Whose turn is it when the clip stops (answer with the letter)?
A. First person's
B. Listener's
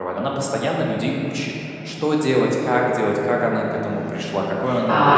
B